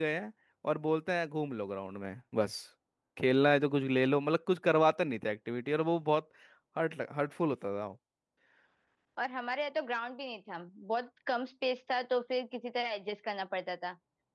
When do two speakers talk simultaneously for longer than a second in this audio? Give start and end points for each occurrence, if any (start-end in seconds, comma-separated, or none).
none